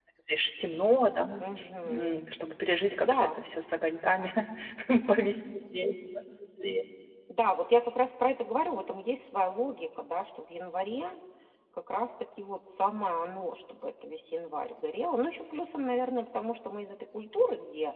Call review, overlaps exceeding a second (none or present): none